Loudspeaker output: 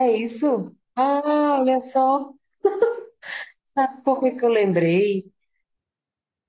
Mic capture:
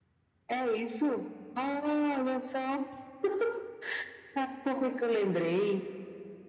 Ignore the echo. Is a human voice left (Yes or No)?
No